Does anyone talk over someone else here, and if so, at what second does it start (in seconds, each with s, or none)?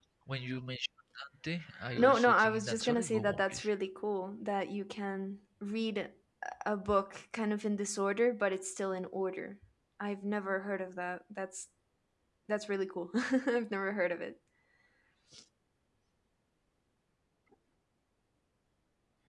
2.0 s